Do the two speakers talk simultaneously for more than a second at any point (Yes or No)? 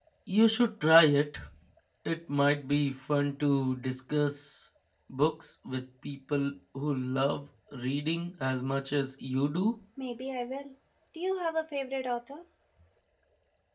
No